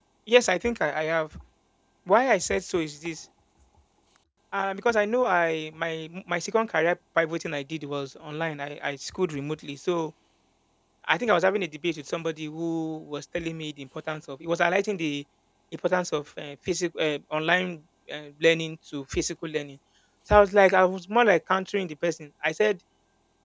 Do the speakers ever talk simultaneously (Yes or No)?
No